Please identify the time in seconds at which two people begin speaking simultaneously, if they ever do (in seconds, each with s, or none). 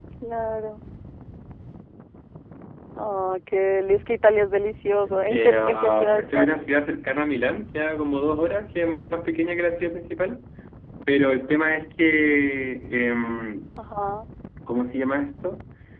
5.3 s